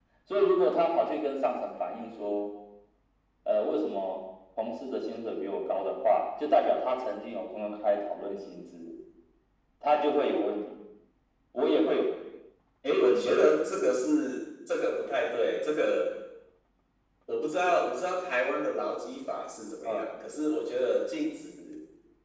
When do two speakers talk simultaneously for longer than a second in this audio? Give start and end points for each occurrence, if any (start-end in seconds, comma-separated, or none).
none